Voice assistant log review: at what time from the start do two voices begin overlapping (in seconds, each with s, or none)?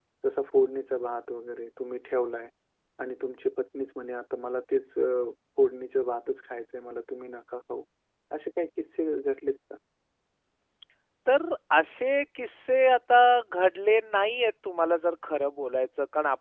none